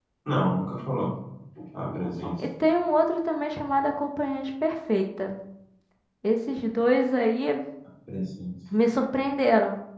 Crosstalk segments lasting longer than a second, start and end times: none

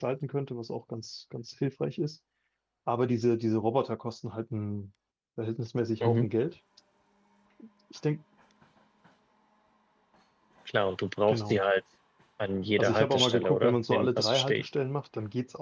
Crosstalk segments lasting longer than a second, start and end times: 12.8-14.6

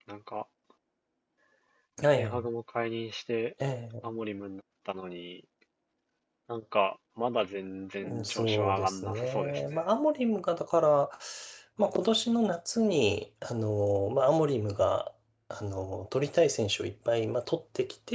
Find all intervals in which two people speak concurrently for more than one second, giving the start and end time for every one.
8.0-9.8

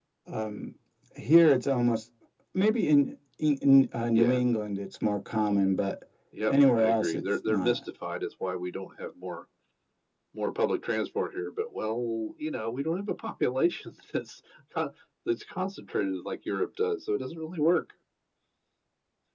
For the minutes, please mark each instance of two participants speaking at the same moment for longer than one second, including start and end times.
6.5-7.8

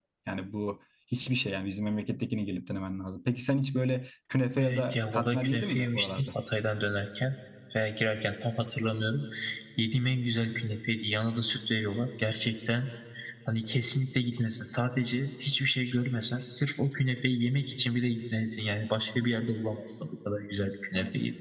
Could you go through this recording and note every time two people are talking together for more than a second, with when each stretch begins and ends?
4.6-6.2

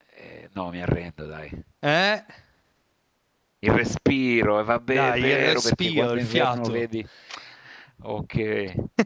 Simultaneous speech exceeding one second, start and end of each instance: 4.9-6.8

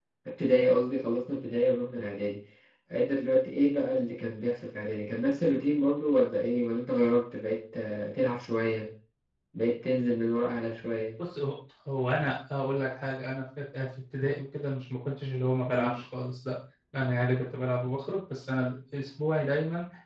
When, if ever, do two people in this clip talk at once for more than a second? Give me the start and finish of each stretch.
none

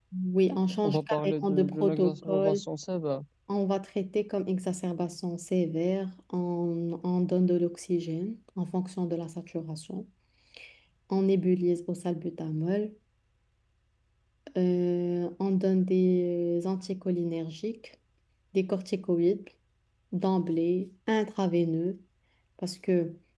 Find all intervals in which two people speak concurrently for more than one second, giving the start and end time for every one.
0.8-2.6

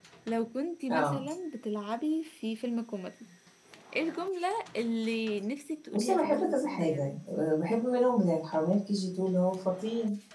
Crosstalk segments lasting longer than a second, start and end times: 5.9-7.1

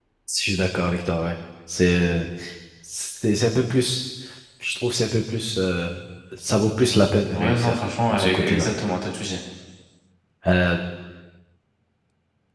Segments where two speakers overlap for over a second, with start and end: 7.3-8.7

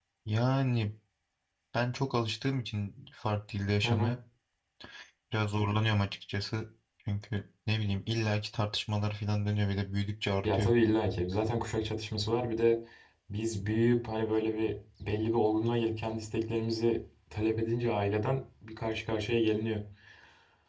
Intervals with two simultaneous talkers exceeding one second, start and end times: none

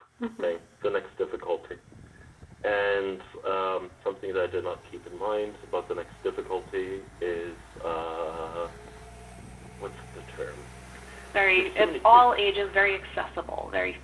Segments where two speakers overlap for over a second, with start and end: 11.6-13.0

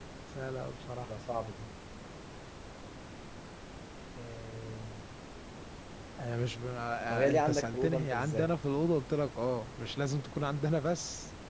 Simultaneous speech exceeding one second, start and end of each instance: 7.1-8.5

